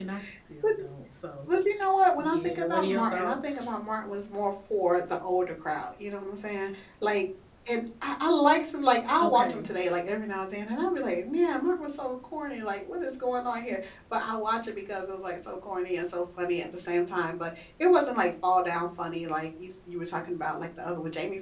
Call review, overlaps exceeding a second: present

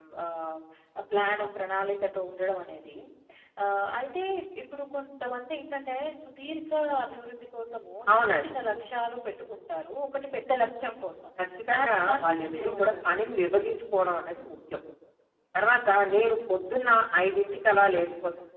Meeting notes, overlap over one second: present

